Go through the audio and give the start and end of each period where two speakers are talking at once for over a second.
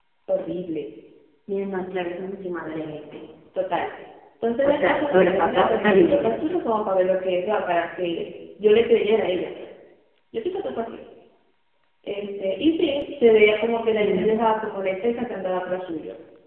4.6-6.3

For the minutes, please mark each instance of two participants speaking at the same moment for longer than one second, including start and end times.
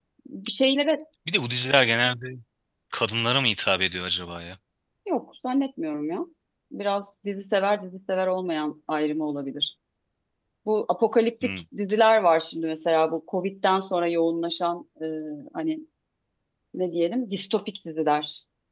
none

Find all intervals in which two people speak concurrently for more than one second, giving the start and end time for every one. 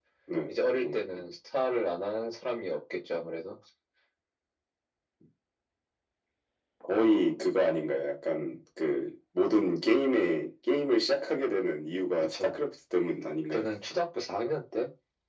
none

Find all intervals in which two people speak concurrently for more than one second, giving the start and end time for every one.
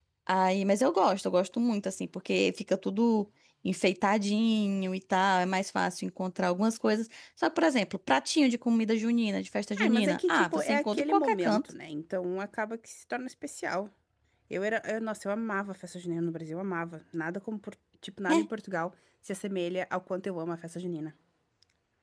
9.8-11.6

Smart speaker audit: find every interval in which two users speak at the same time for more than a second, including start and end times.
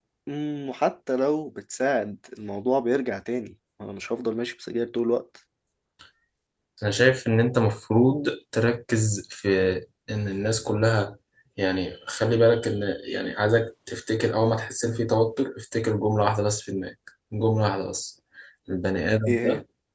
none

